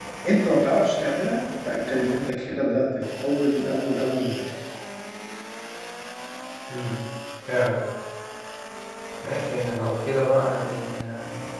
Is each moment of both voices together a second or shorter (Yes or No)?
Yes